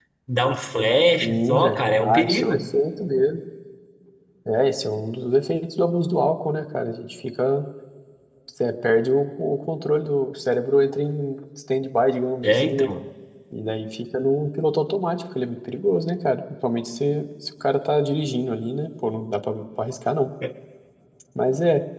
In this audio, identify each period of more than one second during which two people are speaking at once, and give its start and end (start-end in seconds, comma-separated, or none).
1.2-2.7